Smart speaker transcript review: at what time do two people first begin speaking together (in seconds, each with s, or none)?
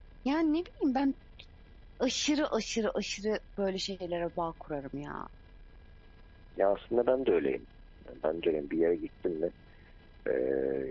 none